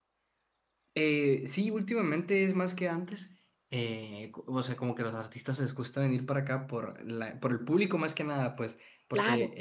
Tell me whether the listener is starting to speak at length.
No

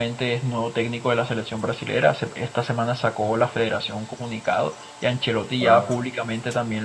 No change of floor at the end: Yes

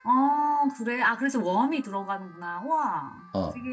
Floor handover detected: Yes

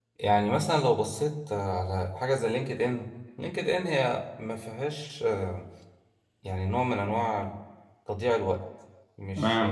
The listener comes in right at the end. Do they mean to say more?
No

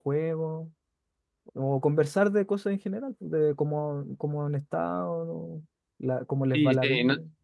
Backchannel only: No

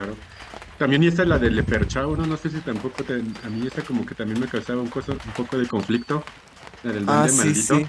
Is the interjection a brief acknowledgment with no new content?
No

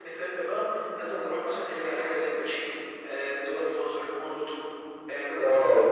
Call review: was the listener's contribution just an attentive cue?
No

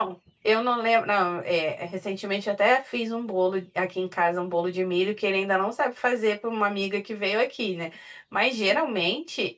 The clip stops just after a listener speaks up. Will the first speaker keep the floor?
Yes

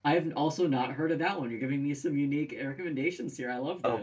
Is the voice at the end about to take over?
Yes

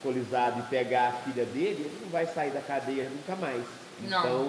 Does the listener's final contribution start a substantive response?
No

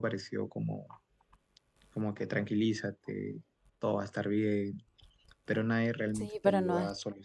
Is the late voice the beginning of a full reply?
Yes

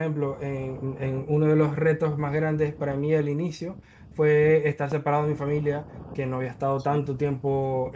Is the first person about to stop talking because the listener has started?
No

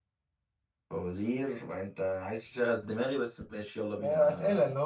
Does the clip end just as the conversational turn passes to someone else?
Yes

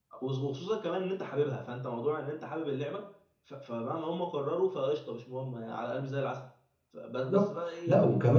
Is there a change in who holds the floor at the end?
Yes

